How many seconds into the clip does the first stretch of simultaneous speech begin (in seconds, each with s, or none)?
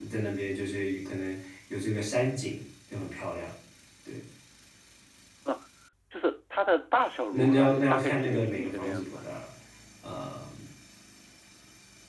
7.3 s